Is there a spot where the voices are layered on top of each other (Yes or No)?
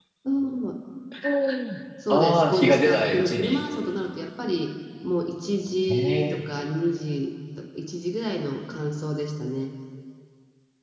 Yes